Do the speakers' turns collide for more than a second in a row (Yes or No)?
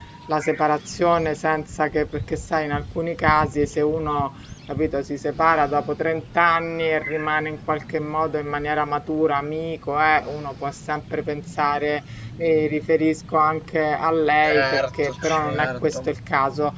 Yes